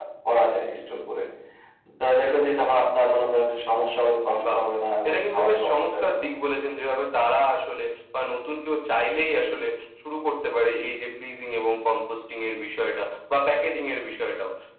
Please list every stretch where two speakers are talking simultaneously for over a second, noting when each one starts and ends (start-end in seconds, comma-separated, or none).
5.1-6.3